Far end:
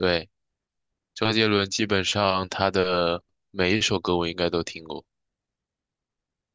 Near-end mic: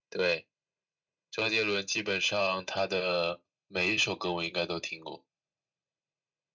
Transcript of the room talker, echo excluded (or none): none